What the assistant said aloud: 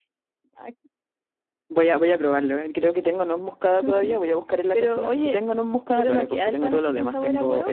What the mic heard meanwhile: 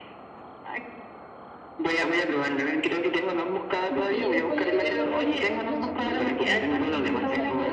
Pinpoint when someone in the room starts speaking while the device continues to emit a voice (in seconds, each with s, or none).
4.0 s